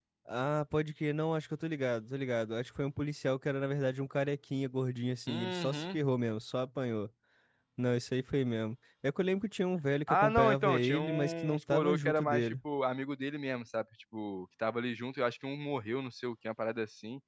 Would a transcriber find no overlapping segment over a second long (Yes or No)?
No